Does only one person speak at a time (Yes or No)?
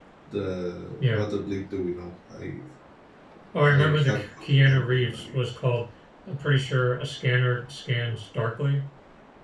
No